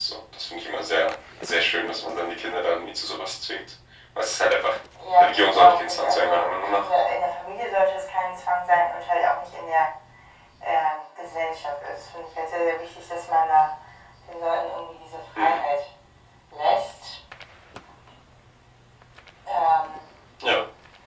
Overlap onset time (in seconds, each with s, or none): 5.2 s